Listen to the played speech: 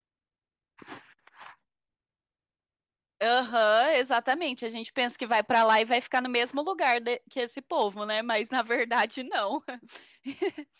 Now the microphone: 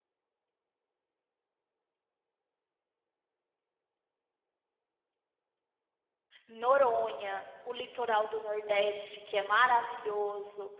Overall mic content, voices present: user only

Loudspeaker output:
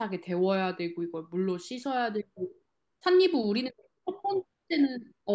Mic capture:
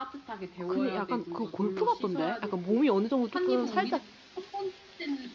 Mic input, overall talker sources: both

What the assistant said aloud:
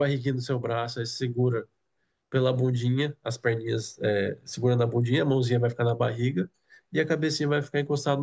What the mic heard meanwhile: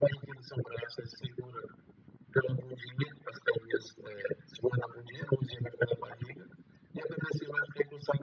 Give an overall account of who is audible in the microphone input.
echo only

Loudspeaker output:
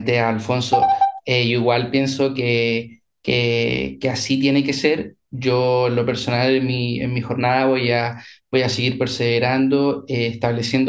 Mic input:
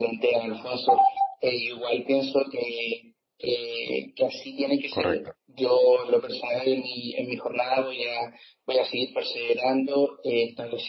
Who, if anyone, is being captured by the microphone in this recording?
both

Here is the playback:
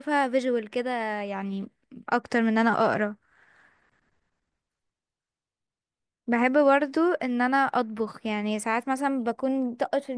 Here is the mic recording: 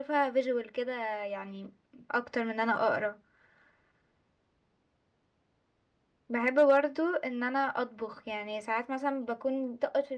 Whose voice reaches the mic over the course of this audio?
echo only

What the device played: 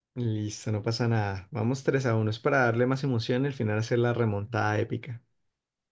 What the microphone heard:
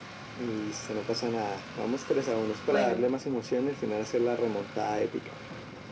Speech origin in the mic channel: both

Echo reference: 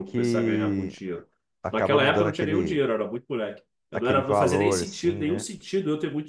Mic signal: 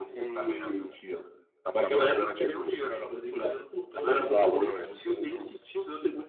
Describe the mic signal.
both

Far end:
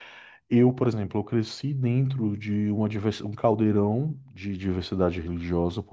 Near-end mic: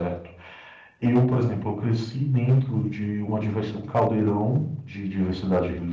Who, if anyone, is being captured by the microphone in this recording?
echo only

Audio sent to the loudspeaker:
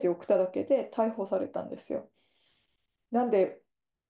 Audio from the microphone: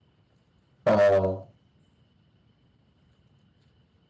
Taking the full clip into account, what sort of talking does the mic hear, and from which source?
user only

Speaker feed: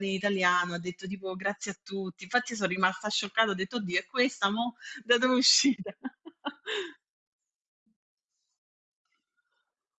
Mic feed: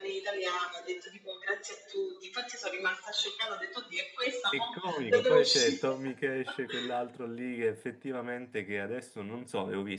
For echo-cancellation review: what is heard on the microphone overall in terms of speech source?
both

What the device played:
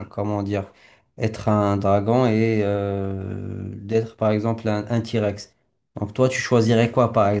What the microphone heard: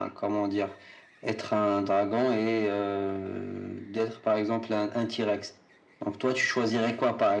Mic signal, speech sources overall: echo only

